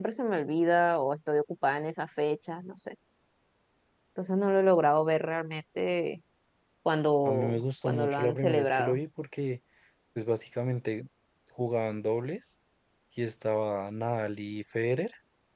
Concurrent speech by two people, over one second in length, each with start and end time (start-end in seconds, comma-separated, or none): 7.2-9.0